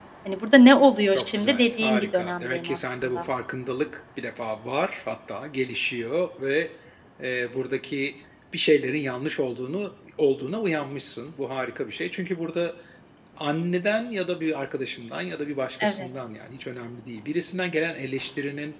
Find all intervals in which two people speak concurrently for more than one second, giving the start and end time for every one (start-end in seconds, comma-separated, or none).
1.1-3.2